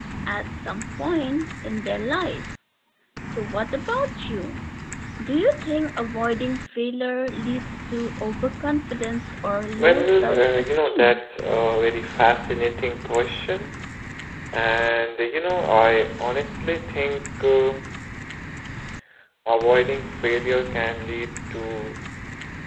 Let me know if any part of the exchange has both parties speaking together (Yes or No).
Yes